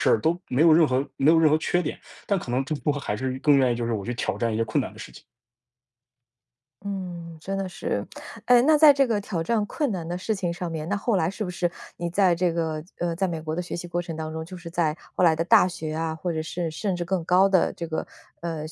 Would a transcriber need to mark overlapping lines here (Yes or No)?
No